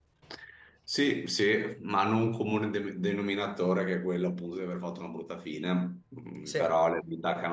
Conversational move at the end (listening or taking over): listening